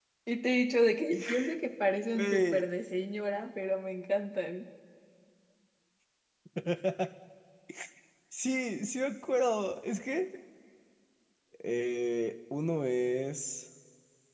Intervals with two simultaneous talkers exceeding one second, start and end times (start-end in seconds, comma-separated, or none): none